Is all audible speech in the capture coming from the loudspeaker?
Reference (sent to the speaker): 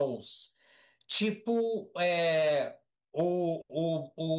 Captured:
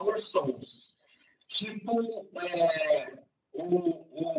Yes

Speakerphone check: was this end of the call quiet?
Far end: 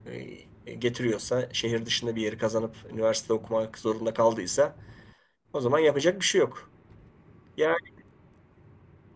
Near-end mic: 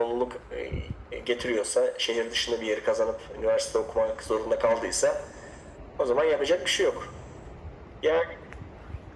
Yes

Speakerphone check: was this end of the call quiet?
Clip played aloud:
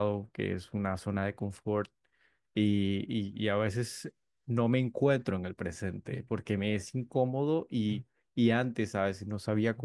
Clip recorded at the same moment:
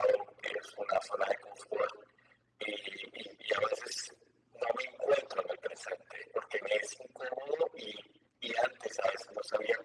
Yes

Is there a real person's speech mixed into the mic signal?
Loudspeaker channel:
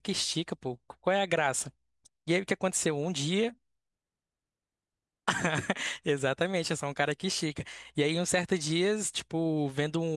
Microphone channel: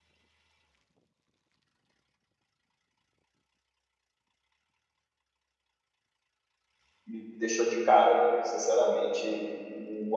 Yes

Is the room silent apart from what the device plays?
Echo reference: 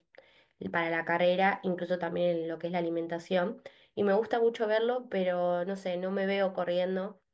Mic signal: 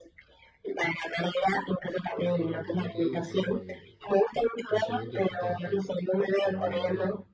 No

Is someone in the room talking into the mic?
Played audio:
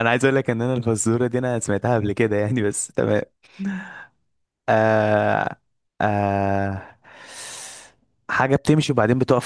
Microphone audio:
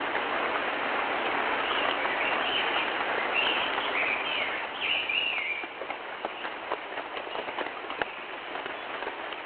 No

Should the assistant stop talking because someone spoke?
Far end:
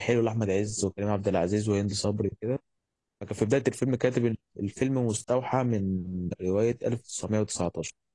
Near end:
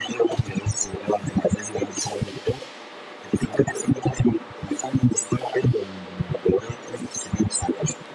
No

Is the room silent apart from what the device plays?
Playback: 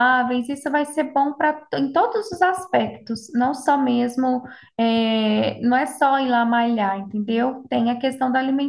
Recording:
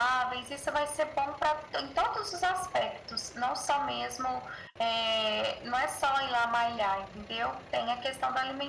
Yes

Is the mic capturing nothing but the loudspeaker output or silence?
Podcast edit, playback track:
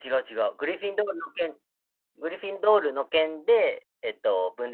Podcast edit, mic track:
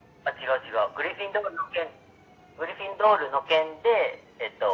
Yes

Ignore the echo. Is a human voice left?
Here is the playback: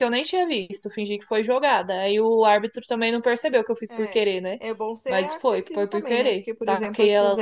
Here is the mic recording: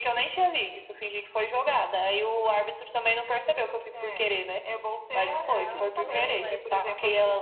Yes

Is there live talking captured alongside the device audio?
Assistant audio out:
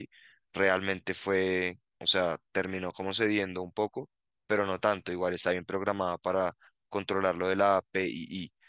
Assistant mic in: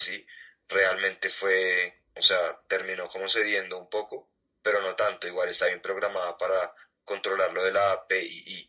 No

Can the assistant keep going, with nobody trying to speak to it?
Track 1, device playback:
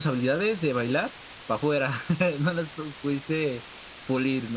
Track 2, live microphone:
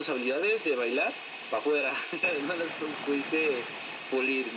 Yes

